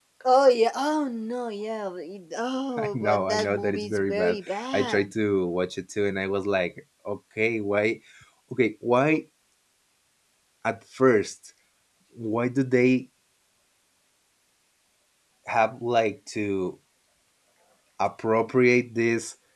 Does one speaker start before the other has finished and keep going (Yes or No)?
Yes